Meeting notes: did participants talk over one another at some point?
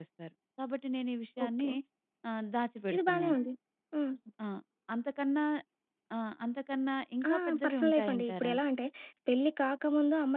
Yes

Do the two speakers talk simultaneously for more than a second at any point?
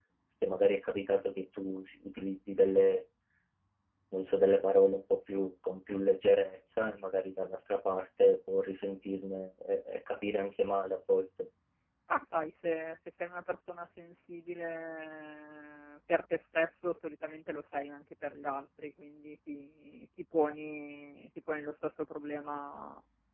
No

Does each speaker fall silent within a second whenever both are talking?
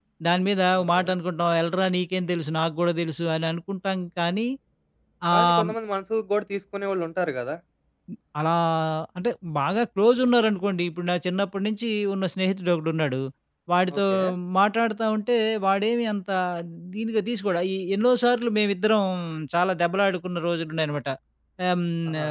Yes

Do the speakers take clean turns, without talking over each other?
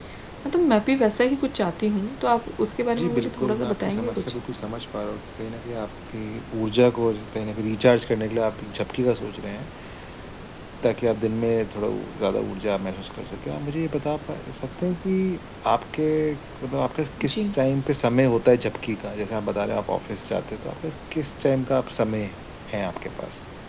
No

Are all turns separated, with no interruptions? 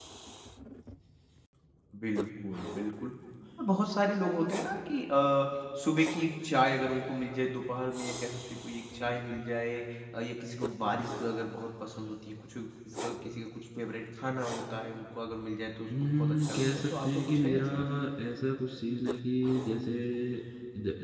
No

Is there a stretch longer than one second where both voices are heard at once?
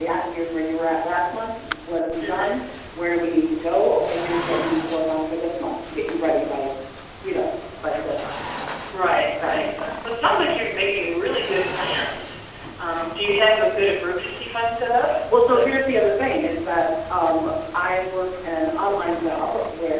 No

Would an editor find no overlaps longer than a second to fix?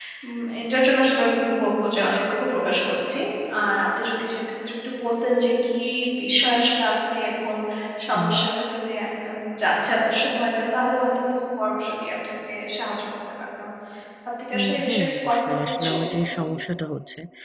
No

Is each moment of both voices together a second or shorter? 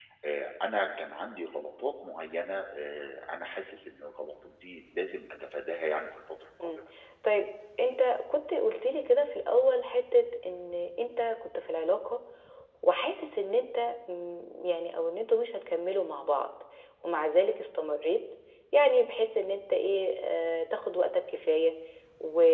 Yes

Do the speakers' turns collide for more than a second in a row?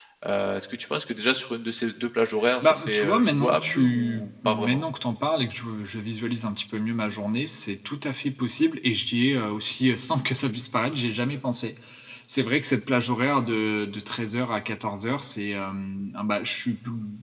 Yes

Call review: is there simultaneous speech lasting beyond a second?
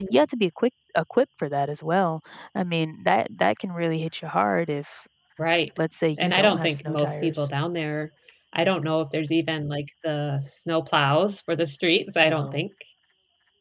Yes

